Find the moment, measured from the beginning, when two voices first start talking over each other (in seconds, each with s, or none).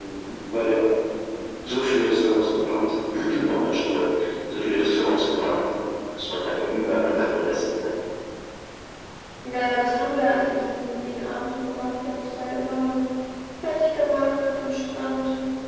none